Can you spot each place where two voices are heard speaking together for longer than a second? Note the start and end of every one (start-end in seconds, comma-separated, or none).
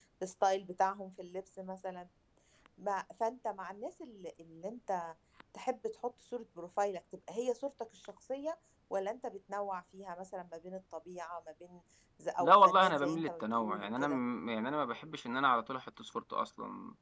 12.4-14.2